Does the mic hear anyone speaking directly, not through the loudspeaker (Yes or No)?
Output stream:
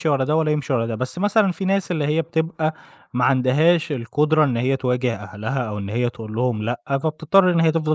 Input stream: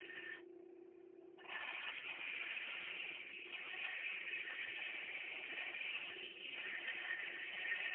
No